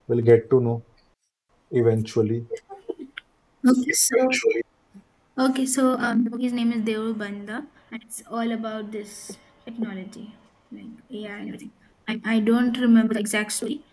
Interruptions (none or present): none